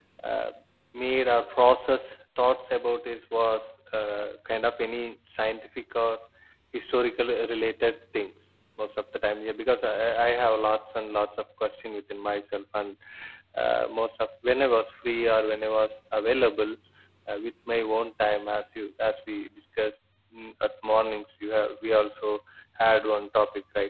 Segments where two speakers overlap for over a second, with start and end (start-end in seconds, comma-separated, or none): none